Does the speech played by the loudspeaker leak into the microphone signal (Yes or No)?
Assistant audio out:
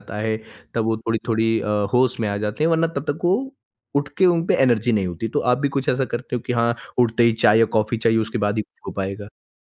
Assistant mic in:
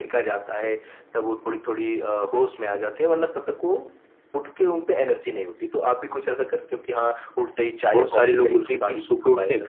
Yes